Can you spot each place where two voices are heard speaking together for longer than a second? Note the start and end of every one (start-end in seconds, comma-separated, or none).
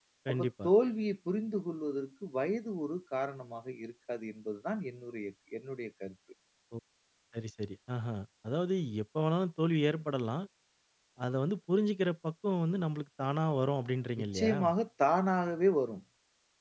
none